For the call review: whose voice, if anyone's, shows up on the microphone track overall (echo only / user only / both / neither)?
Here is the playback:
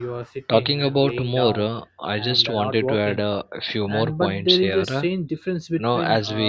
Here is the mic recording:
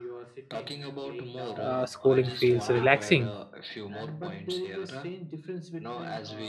both